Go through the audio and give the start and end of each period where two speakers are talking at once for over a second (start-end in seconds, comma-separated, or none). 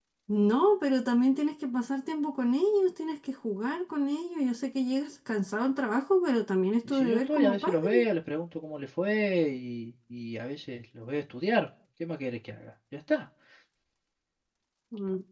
6.8-8.1